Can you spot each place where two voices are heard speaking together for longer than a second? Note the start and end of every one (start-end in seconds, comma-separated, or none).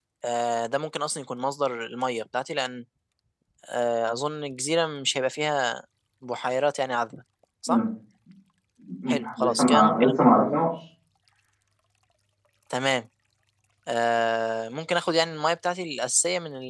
9.1-10.6